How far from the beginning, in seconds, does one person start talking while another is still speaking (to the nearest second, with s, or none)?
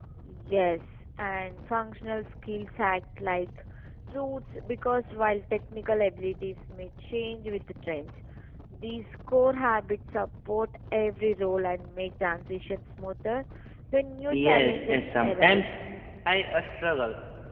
14 s